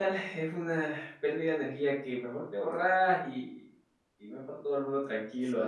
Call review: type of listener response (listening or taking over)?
taking over